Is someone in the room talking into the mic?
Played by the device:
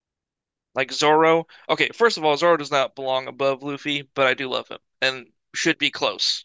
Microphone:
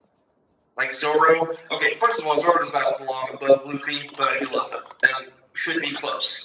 No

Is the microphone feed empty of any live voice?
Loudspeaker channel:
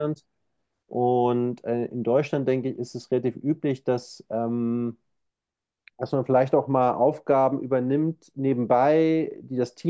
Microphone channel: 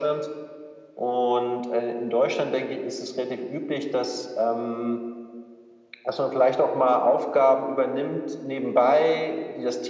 Yes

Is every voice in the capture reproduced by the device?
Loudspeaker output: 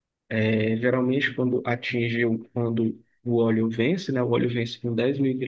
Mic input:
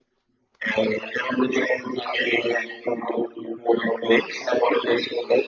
Yes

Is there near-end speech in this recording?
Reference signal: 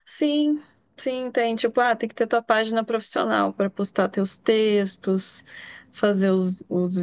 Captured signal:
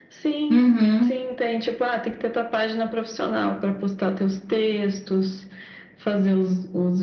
Yes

